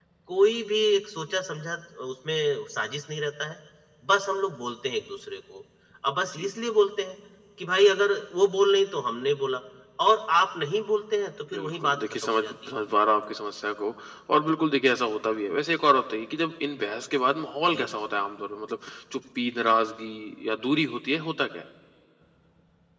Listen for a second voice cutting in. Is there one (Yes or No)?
Yes